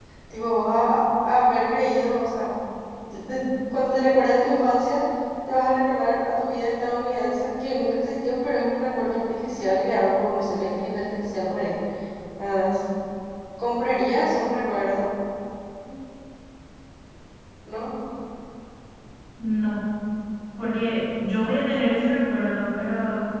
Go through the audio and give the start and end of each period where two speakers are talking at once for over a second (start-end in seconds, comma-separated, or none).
none